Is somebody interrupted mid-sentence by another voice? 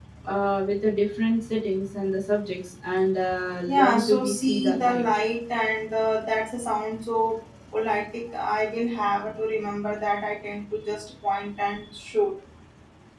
Yes, from 3.7 s

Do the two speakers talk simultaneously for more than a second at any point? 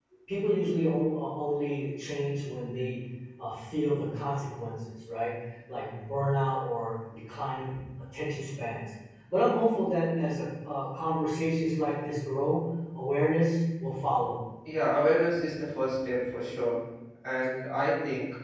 No

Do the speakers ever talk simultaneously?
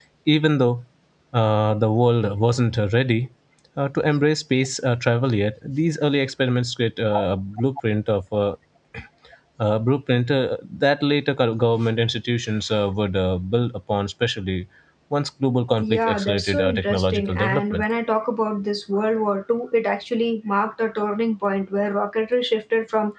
Yes, from 15.8 s

